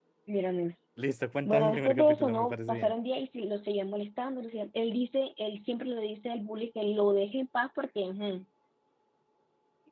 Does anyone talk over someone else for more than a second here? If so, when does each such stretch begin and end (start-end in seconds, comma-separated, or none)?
1.4-2.9